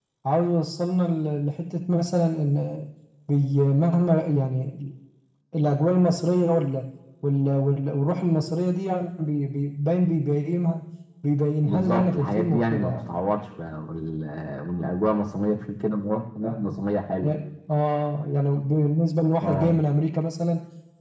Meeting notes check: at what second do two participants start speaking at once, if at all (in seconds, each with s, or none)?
11.7 s